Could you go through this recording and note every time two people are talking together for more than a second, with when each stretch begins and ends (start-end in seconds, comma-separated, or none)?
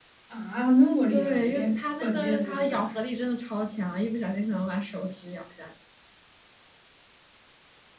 1.1-2.9